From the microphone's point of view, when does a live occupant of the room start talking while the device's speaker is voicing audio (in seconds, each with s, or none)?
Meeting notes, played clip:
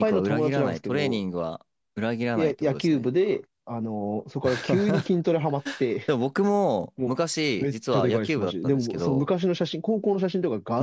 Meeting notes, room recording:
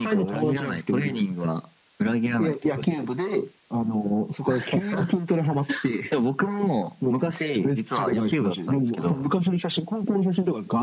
none